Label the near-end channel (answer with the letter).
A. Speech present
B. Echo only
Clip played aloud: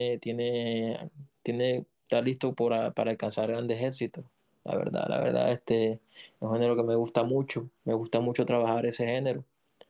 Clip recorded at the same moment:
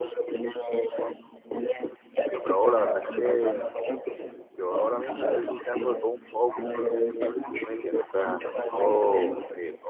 A